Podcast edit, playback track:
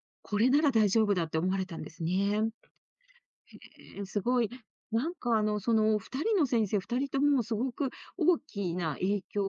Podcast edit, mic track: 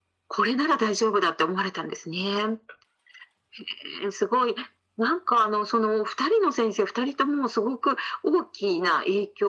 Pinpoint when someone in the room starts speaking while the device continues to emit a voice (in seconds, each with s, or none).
none